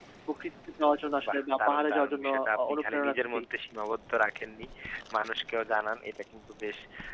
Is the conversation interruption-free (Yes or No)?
No